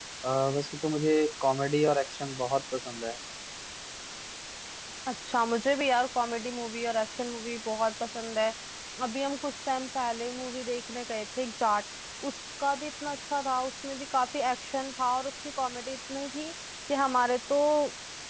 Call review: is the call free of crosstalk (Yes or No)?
Yes